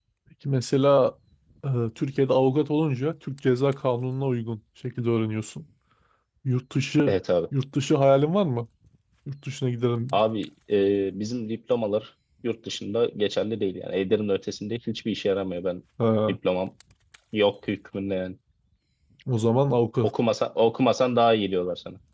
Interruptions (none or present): none